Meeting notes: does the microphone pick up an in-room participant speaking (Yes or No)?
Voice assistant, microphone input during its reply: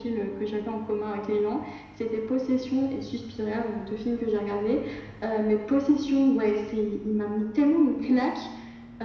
No